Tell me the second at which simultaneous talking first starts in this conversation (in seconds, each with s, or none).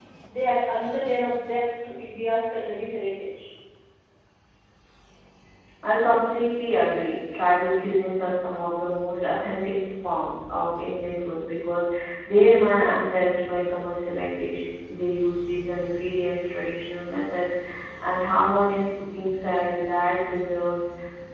none